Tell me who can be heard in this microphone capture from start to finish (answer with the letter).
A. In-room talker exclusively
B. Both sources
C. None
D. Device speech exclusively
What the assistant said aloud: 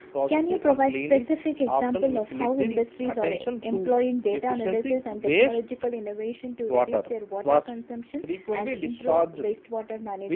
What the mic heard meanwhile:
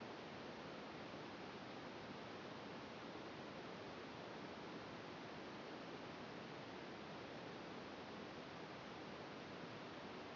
C